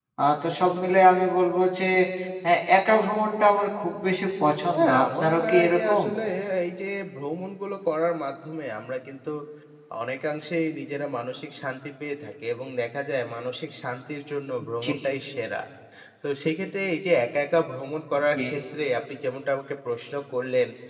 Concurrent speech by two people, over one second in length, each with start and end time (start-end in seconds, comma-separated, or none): 4.7-6.0